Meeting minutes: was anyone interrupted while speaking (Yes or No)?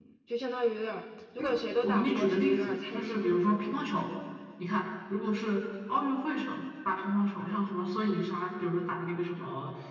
Yes